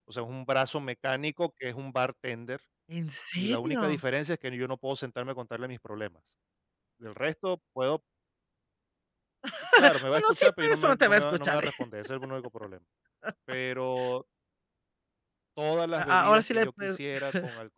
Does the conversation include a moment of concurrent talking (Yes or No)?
Yes